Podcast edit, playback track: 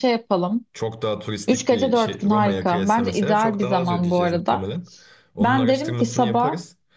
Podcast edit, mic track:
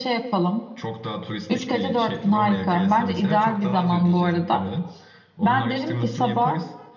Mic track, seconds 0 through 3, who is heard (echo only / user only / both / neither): echo only